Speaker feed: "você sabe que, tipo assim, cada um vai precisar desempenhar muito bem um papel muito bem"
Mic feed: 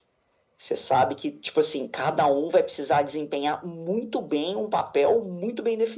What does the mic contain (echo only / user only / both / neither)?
echo only